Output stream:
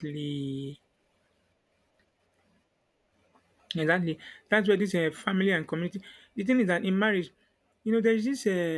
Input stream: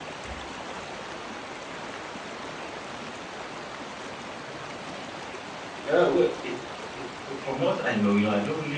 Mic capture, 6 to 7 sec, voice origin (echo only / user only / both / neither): user only